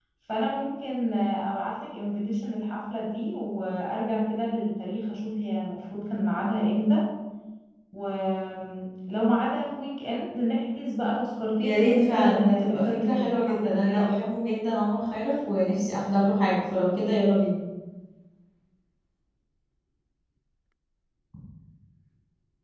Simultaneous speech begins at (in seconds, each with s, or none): 11.6 s